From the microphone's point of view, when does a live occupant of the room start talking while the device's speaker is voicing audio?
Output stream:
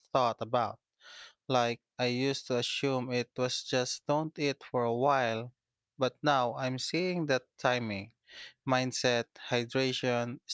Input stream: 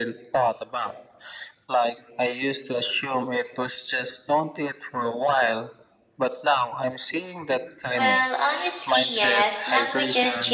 7.9 s

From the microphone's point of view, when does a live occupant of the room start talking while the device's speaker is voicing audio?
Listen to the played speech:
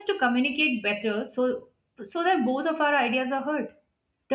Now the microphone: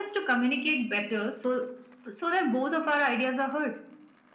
none

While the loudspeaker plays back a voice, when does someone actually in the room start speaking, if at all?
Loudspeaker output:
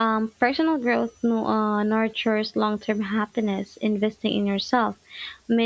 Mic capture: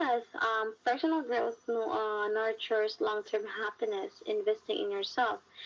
none

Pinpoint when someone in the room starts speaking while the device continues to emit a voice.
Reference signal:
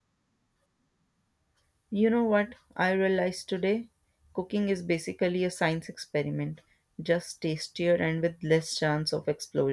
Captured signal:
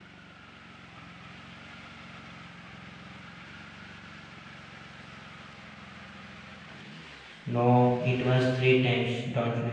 7.4 s

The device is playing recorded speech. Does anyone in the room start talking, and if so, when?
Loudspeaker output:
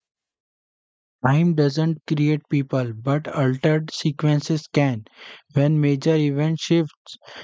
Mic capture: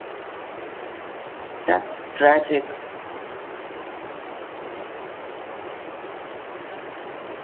1.6 s

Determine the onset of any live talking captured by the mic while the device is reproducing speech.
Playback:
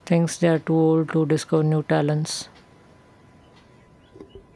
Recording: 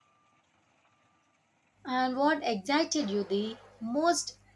1.9 s

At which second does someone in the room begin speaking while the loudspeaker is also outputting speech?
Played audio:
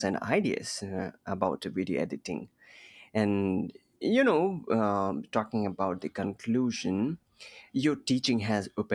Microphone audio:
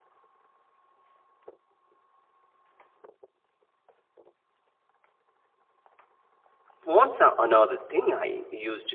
6.8 s

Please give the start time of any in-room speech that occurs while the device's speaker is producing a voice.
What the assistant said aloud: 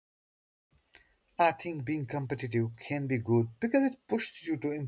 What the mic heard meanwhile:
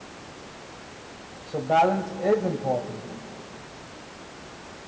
1.4 s

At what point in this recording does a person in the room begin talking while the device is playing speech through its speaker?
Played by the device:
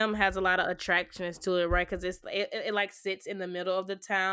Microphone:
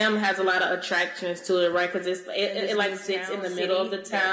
2.4 s

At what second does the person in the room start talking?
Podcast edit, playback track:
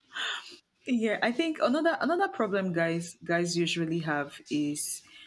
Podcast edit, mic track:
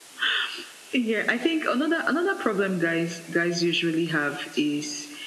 none

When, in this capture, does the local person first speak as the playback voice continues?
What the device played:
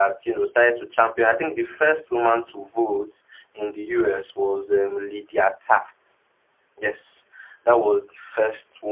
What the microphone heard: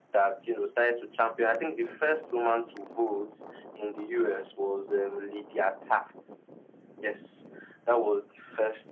none

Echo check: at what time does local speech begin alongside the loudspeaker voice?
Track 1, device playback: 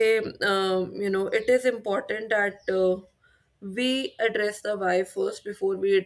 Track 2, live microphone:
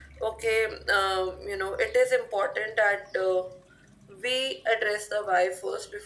none

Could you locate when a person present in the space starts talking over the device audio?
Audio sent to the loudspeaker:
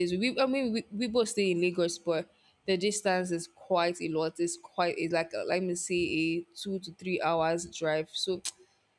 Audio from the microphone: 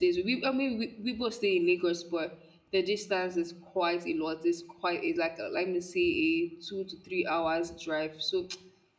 none

